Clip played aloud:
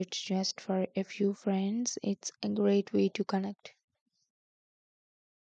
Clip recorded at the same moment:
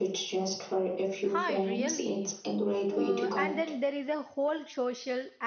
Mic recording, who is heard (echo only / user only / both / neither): both